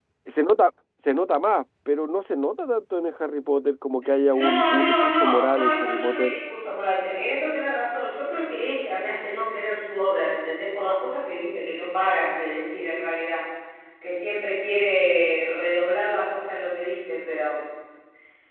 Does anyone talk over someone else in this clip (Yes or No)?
Yes